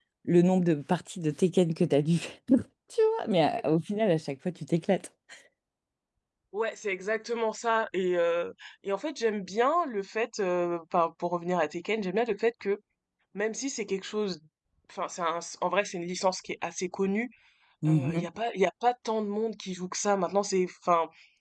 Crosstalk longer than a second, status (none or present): none